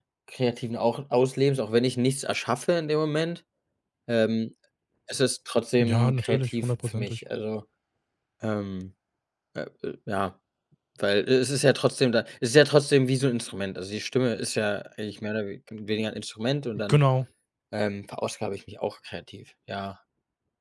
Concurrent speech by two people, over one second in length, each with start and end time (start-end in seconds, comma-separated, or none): 5.8-7.2